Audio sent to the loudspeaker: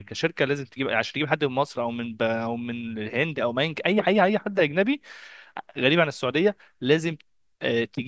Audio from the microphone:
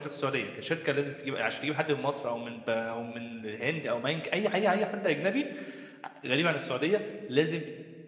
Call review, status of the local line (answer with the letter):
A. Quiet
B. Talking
A